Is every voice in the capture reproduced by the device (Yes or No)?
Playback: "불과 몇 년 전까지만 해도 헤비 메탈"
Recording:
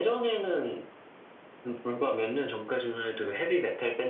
Yes